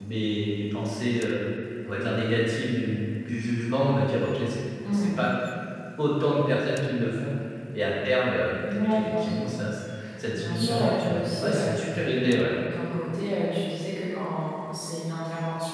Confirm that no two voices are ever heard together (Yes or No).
No